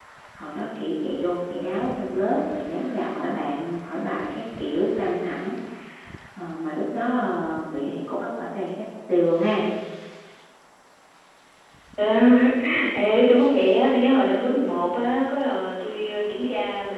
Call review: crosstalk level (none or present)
none